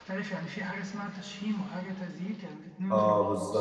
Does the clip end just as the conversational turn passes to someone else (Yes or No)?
Yes